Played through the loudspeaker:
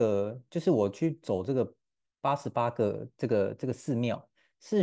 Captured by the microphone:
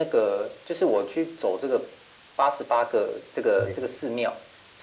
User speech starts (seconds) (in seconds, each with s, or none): 3.6 s